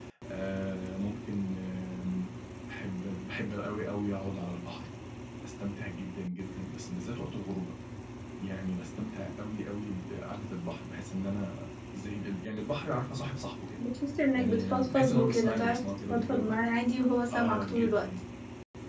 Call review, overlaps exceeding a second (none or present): present